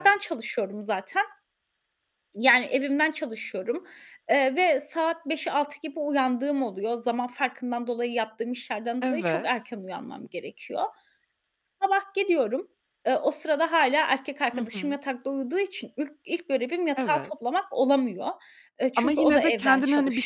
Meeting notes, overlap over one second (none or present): present